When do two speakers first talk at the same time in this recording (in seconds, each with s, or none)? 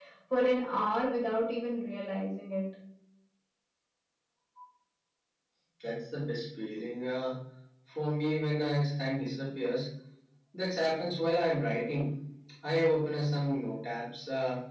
none